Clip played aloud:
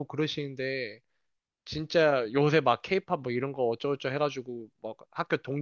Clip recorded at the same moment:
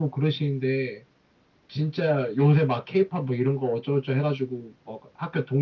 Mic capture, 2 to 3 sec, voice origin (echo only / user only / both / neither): echo only